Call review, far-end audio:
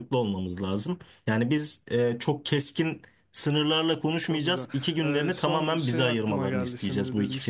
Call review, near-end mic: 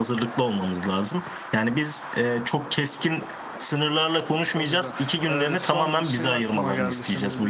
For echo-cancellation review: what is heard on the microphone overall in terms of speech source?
echo only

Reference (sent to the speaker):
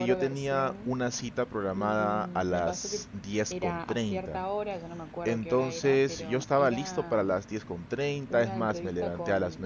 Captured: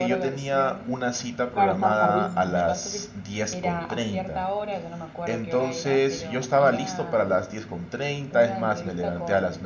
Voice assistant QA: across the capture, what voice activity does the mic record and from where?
both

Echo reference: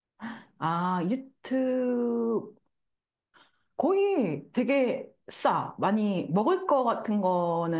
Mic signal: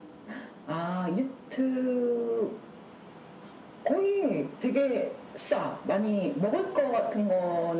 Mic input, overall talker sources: echo only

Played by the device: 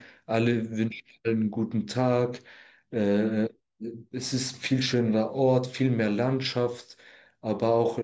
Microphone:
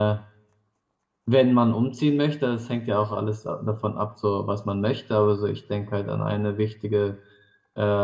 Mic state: user only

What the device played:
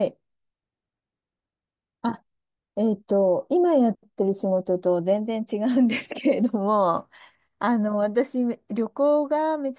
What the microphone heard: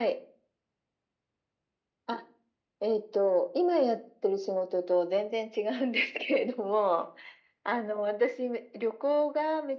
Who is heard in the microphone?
echo only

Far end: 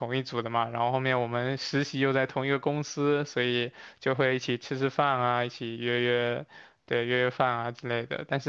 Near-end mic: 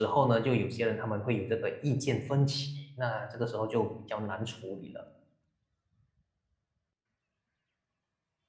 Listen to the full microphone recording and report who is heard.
user only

